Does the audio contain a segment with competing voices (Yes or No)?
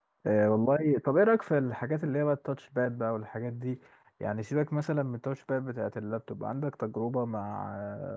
No